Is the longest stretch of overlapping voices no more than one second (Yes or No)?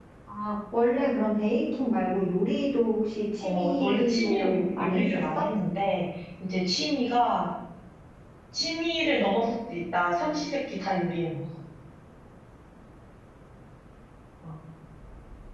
No